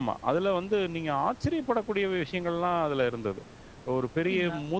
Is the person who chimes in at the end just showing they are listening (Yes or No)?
Yes